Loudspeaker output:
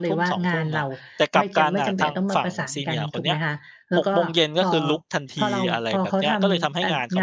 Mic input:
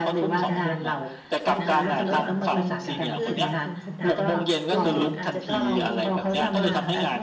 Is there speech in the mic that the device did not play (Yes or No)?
Yes